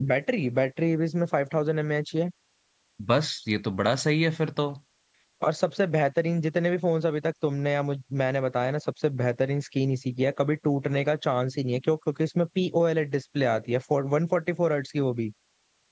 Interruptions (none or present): none